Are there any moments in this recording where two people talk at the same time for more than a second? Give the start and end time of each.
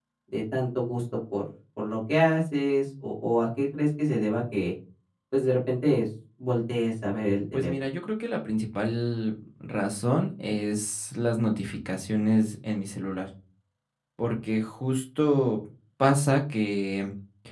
none

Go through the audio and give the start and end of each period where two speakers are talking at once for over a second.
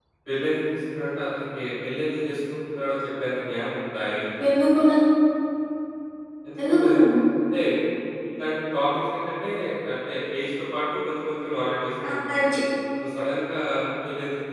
none

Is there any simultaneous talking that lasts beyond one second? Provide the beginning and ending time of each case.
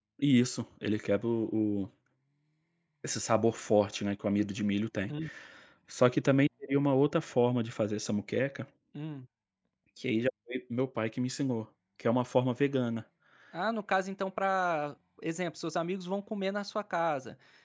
none

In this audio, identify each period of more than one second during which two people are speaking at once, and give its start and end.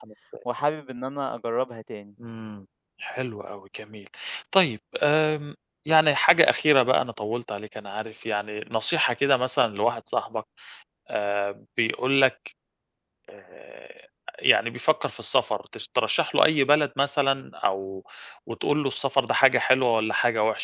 none

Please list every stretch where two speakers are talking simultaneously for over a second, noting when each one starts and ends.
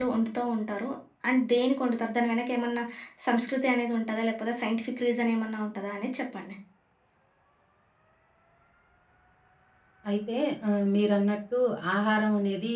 none

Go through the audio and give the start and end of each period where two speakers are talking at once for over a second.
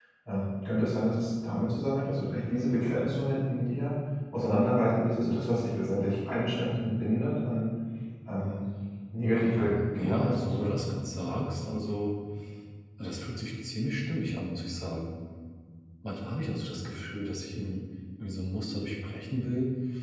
9.3-10.7

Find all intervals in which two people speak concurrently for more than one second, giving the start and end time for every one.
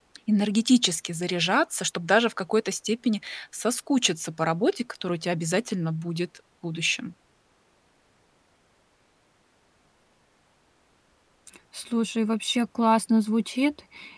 none

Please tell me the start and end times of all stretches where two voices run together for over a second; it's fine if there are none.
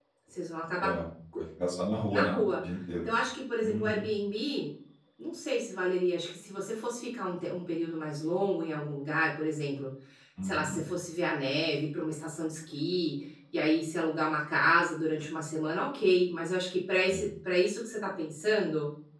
none

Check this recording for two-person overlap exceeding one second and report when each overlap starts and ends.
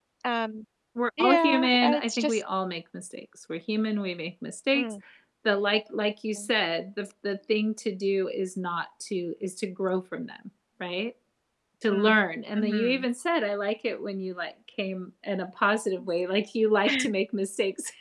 1.2-2.4

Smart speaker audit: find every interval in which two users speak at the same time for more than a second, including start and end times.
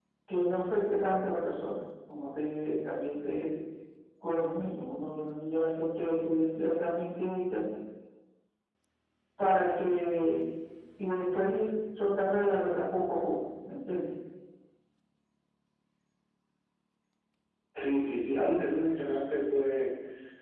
none

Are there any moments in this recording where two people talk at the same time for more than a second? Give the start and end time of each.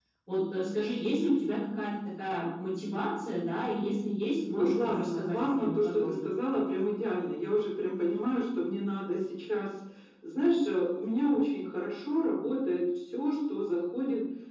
4.6-6.3

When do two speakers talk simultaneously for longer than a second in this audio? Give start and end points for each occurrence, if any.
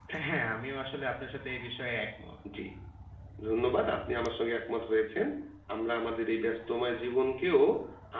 none

